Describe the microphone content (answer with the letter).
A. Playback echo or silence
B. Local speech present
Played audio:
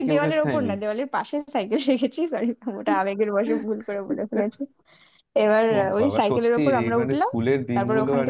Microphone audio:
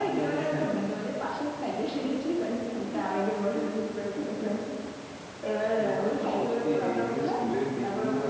A